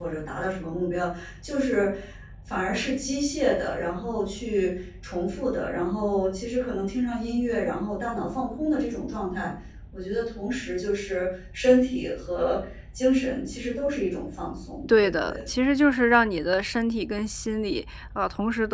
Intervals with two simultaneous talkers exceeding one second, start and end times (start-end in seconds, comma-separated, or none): none